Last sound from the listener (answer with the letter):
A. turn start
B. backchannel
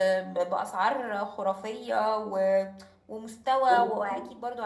B